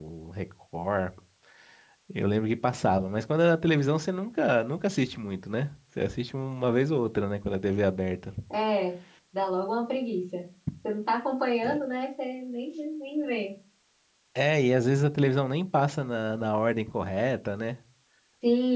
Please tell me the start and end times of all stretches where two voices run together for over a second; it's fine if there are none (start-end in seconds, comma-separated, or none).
none